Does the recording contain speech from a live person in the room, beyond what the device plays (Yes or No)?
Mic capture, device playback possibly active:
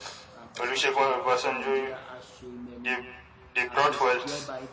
Yes